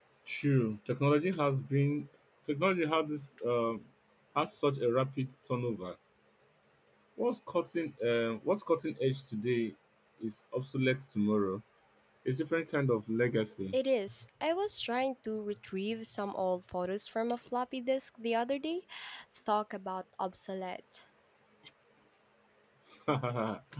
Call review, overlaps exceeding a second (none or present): none